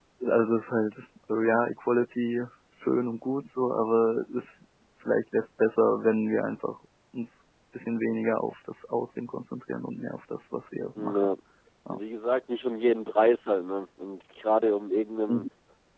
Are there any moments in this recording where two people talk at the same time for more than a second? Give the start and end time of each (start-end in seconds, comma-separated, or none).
none